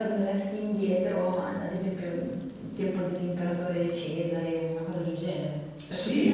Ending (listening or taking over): taking over